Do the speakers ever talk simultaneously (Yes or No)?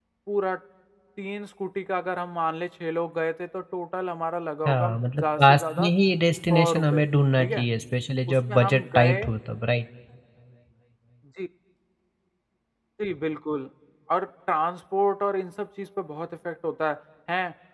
Yes